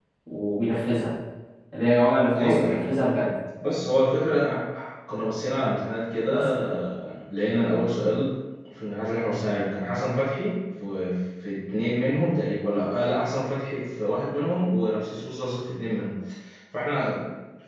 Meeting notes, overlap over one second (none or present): none